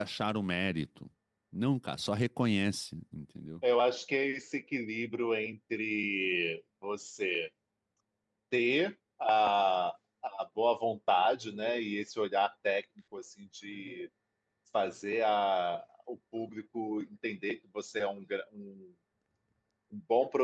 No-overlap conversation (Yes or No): Yes